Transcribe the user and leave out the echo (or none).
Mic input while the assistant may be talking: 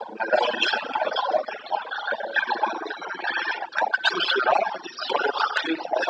none